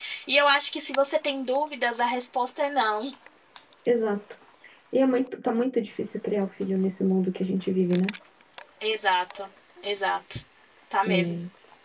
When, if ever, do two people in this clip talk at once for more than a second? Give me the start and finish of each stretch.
none

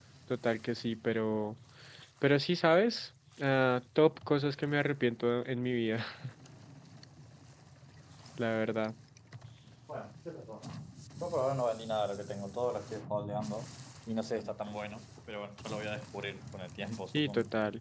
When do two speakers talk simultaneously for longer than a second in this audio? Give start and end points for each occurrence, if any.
none

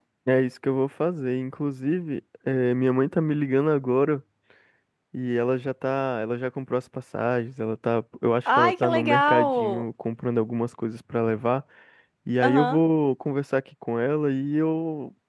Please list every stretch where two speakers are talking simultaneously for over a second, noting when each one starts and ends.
8.4-9.8

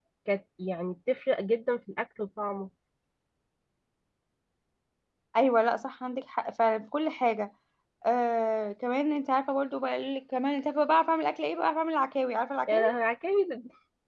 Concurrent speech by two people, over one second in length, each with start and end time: none

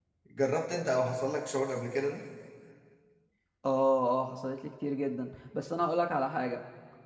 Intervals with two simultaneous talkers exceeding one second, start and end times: none

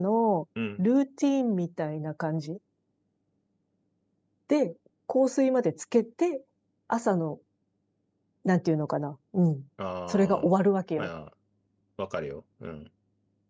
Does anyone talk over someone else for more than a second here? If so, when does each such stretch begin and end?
none

